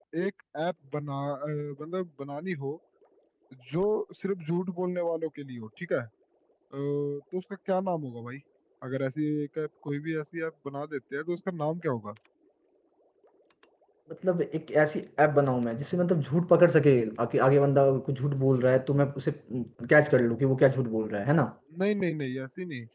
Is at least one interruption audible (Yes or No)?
No